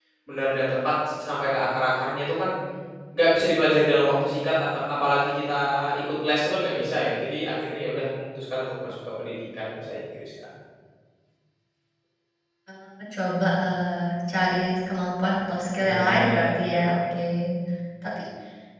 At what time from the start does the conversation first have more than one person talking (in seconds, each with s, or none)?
15.8 s